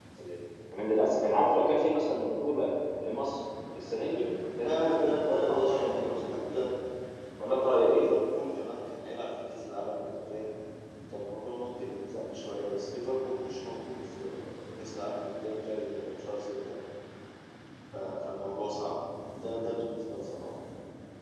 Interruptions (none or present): present